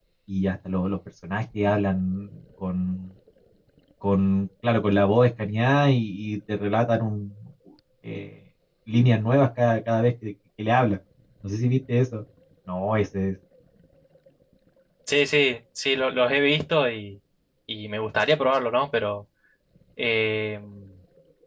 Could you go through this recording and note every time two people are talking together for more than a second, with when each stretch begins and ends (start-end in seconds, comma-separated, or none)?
none